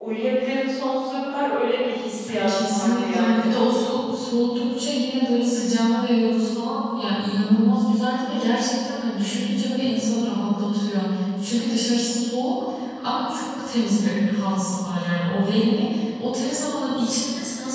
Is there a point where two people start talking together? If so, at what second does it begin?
2.3 s

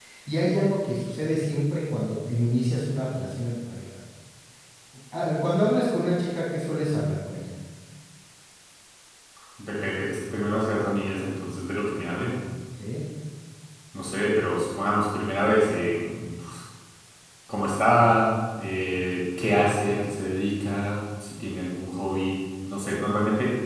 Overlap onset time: none

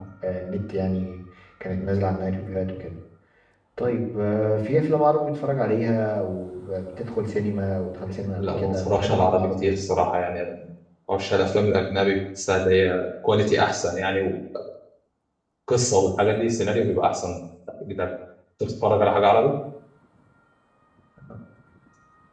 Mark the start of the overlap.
8.4 s

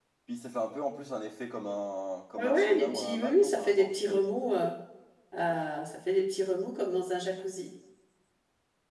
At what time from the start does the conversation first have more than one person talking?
2.4 s

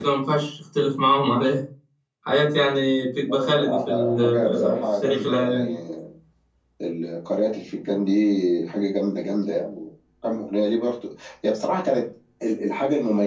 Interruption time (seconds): 3.2 s

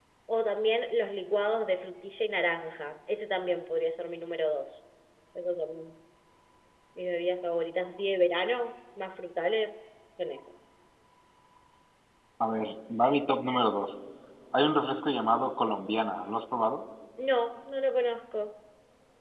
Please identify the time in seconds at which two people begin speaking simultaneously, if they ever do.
none

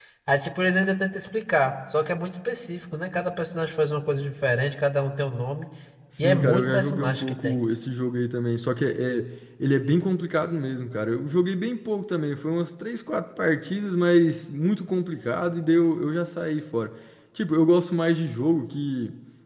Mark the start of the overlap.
6.2 s

